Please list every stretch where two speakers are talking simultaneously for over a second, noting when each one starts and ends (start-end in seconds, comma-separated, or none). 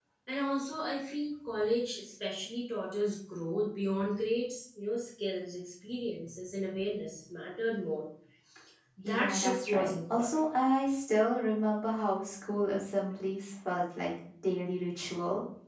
9.0-10.3